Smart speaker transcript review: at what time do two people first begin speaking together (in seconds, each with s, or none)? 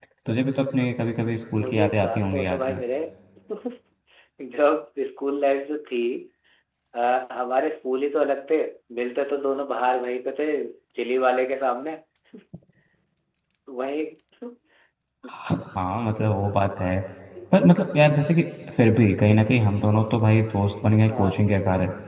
1.6 s